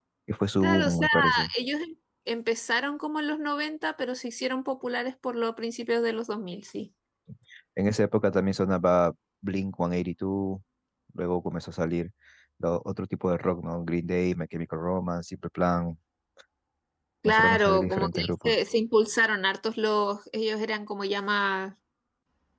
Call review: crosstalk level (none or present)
present